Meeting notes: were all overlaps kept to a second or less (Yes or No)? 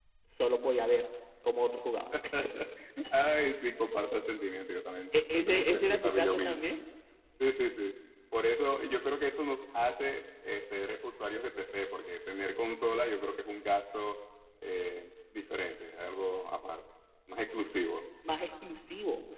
No